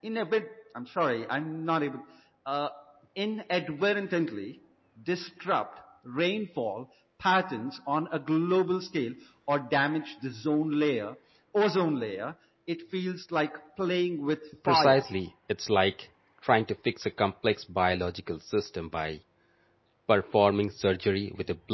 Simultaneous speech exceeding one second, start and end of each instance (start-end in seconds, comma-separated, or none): none